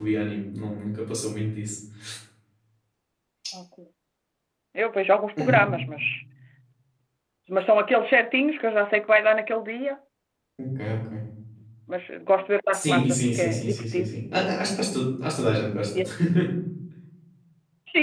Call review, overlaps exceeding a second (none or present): present